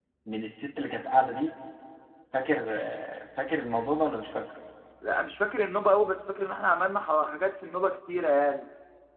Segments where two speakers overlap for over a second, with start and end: none

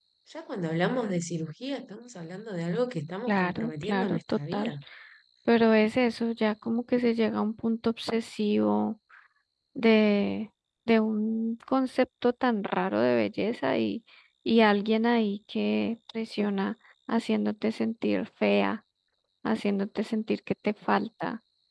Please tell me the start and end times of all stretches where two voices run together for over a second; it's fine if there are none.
3.3-4.7

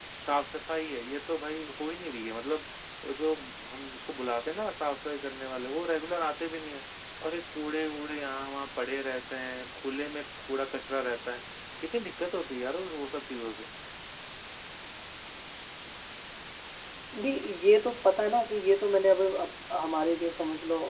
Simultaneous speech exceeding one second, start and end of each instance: none

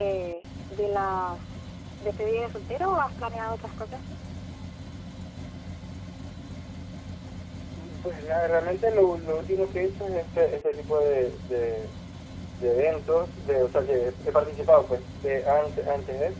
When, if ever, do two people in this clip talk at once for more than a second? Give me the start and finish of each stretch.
none

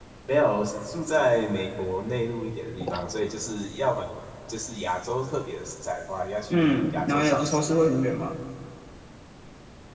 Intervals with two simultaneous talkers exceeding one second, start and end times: 6.5-7.7

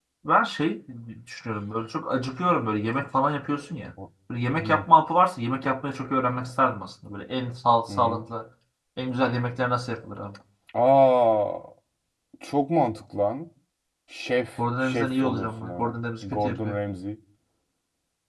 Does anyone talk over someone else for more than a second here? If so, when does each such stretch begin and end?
14.6-16.8

